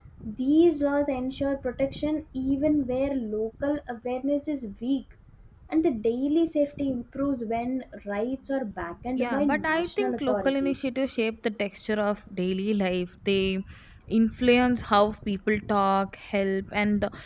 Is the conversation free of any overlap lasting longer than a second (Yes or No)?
No